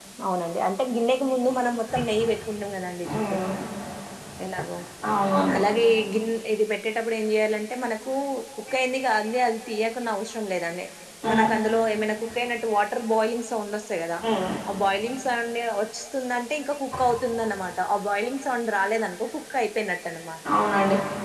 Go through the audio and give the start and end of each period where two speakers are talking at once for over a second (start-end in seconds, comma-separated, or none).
none